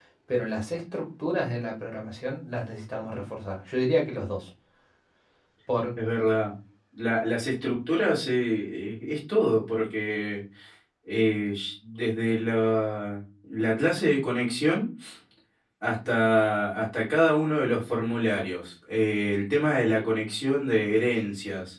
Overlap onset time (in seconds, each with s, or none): none